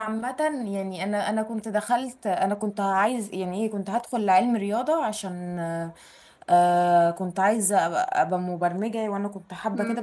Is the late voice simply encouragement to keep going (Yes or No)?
No